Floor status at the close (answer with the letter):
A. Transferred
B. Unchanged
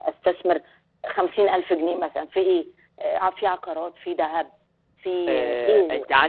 A